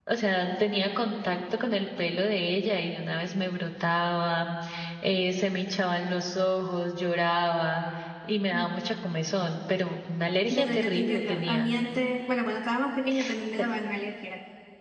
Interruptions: present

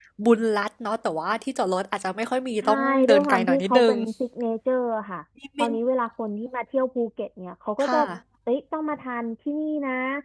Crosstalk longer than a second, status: present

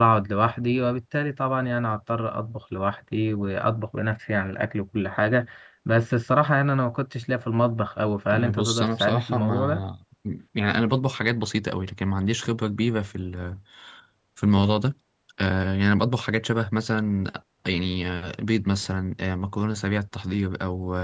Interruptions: present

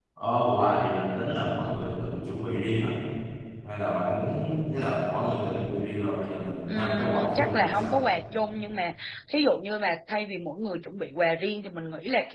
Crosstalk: present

